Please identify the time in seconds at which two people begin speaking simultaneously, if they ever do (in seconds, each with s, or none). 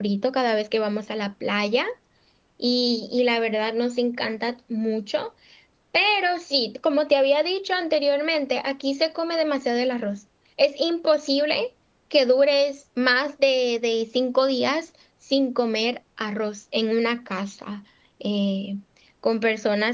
none